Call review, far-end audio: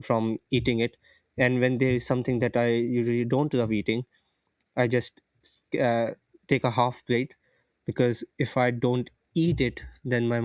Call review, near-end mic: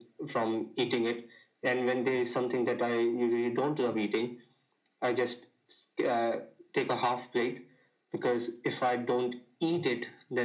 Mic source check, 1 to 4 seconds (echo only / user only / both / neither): echo only